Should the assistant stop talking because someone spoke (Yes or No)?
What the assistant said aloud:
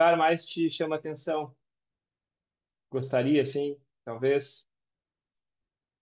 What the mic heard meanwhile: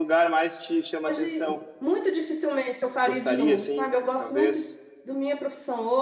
Yes